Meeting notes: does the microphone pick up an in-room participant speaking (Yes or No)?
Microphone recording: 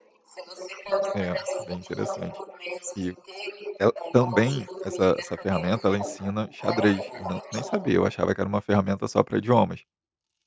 Yes